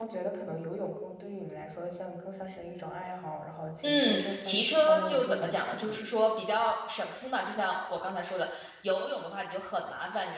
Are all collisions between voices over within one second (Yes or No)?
No